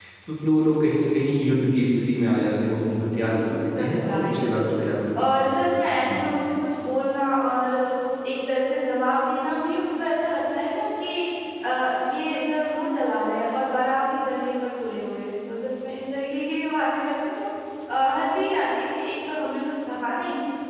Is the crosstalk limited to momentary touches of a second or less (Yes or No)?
No